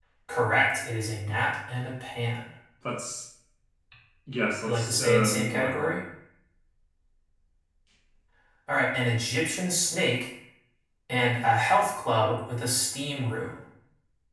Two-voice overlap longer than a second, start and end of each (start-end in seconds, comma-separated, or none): 4.7-5.9